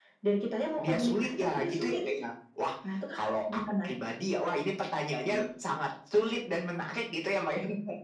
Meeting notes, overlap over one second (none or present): present